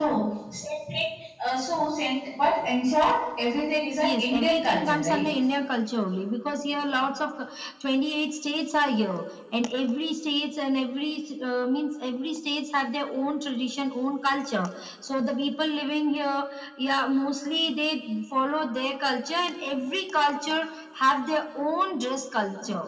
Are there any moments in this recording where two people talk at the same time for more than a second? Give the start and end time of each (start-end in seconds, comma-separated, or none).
4.0-5.2